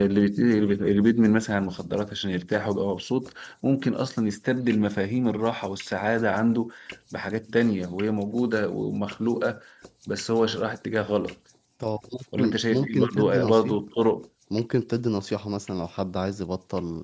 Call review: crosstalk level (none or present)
present